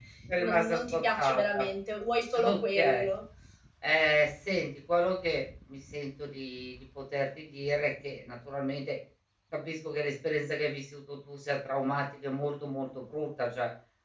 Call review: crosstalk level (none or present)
present